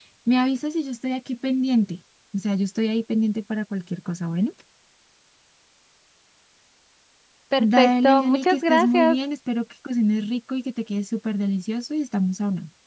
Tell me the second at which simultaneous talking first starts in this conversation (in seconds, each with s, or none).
7.6 s